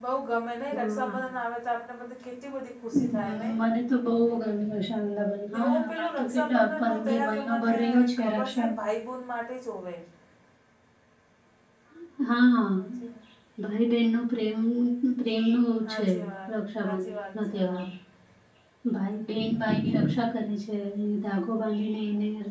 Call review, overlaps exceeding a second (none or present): present